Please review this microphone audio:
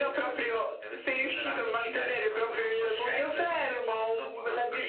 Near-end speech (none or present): none